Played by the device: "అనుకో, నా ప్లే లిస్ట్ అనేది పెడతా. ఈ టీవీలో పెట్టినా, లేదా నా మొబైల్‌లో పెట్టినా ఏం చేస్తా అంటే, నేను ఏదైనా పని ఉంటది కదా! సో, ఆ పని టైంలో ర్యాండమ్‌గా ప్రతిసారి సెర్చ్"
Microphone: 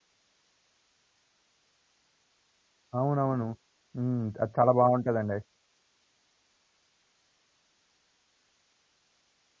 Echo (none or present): none